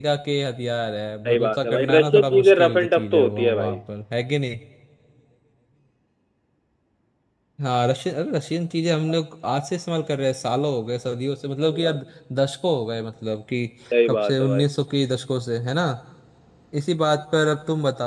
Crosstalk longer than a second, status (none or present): present